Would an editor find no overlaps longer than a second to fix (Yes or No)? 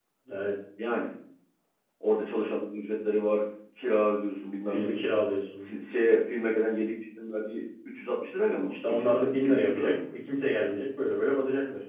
No